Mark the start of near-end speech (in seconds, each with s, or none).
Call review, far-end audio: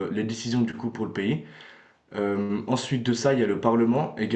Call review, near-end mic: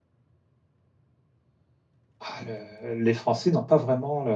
2.2 s